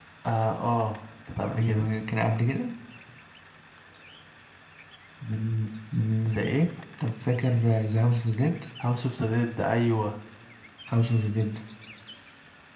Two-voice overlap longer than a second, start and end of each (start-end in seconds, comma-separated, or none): none